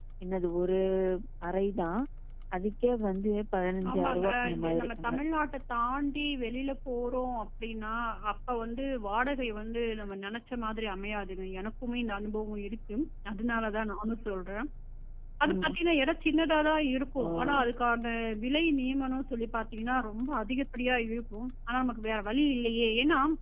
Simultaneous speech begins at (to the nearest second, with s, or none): 4 s